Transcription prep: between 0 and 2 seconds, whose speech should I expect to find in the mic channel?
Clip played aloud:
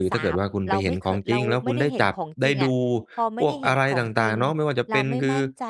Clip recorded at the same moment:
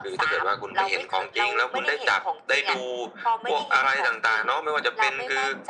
echo only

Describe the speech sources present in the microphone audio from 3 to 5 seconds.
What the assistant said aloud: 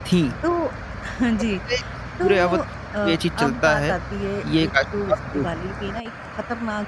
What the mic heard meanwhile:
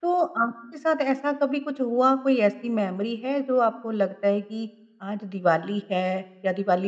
user only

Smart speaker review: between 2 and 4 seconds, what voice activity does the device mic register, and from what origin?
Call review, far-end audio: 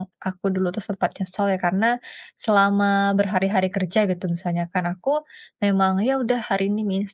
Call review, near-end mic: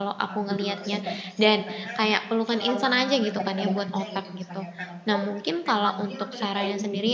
both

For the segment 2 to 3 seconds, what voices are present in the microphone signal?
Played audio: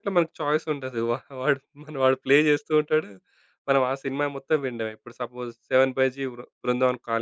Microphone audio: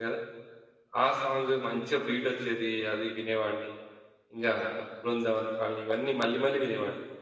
user only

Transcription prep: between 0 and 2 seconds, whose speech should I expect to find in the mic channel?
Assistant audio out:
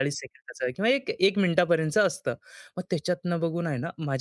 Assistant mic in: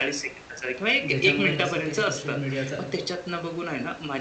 both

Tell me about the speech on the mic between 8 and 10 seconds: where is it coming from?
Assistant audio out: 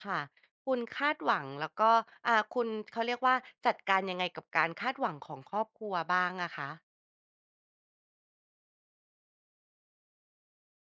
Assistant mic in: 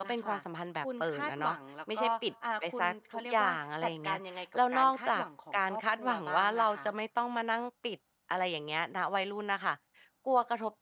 user only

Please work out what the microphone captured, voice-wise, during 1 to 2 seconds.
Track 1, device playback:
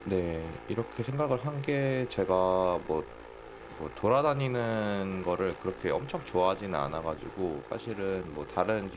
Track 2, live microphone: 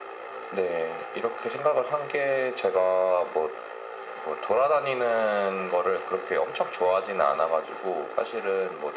echo only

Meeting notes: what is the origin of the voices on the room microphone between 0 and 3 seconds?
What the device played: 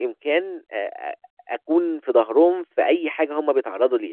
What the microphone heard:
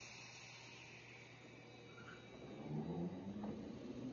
neither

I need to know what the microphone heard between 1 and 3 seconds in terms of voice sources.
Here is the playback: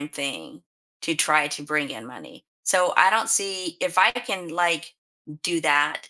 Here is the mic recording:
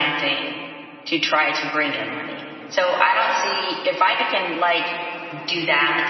echo only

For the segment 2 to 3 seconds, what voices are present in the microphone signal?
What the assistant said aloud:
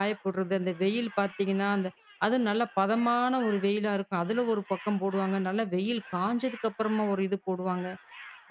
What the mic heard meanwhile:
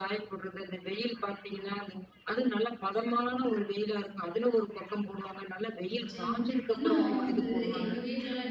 echo only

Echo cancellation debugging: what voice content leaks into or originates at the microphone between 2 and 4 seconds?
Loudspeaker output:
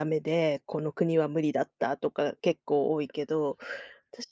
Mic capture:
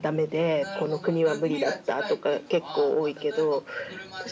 both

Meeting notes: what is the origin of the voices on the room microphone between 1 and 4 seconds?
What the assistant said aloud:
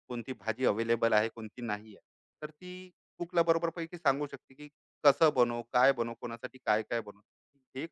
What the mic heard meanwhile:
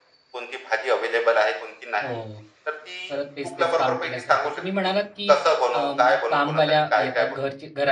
both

